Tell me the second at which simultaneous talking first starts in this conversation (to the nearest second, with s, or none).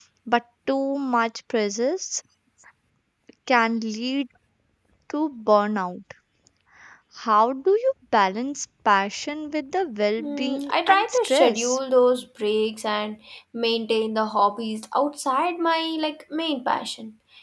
10 s